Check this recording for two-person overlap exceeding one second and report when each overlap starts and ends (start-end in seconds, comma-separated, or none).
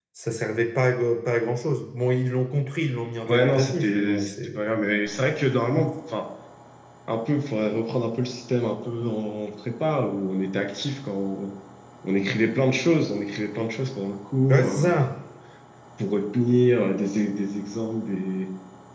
3.2-4.6